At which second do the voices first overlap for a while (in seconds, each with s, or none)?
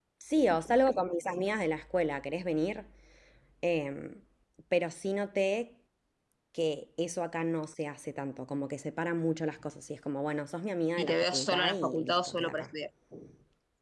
11.0 s